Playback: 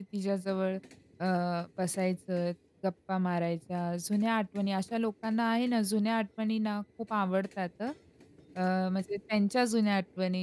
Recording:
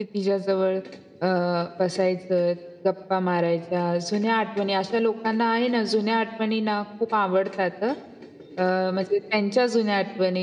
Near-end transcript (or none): none